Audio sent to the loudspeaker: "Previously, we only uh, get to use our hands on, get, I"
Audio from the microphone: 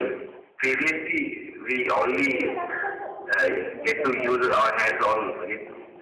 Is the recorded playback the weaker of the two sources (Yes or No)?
No